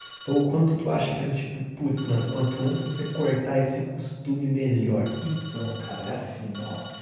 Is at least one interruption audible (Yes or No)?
No